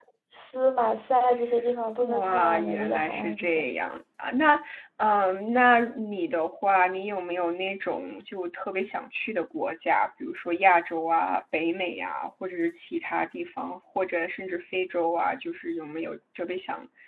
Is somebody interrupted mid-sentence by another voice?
Yes, from 2.0 s

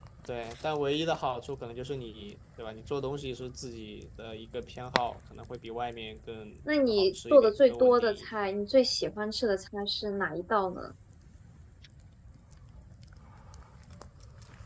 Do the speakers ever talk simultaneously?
Yes, from 6.7 s

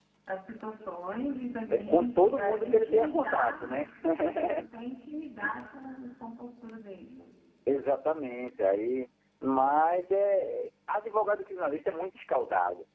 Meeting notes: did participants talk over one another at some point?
Yes, from 1.7 s

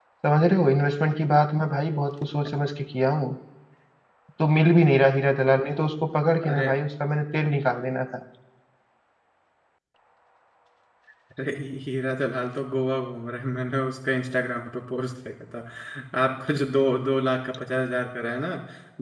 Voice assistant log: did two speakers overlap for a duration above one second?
No

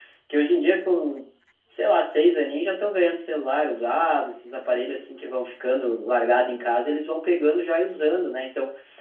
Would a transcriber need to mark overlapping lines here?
No

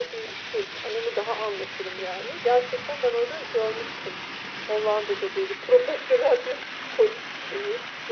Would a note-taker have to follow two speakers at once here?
No

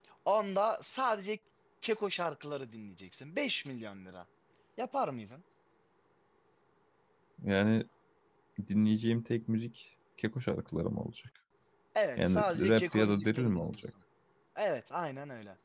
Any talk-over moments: Yes, from 12.2 s

